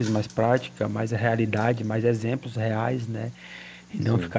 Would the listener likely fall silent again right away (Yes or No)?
Yes